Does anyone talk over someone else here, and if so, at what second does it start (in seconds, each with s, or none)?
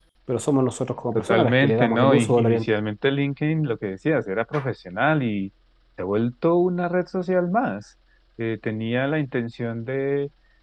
1.2 s